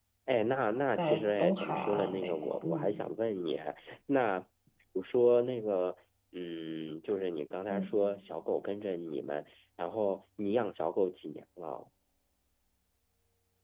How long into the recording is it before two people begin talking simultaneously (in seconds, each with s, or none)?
0.9 s